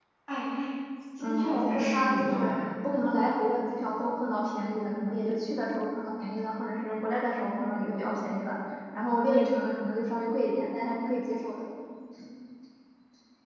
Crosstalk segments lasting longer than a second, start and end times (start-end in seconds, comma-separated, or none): 1.2-2.5